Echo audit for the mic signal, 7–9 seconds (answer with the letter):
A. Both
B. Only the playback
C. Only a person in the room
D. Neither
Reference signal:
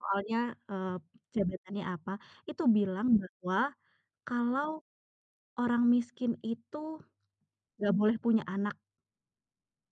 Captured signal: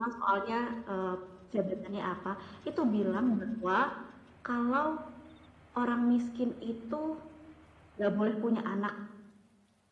B